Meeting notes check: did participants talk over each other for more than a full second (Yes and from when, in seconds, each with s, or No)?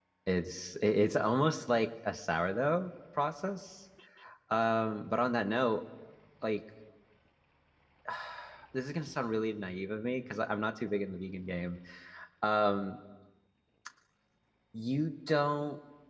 No